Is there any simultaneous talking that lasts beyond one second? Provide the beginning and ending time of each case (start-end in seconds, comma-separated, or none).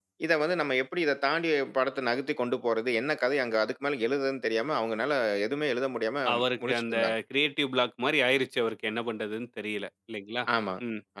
none